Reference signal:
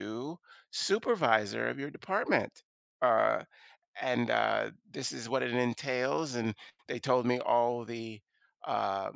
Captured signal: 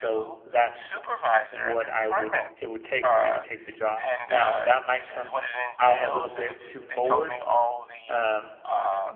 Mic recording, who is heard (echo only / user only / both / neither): both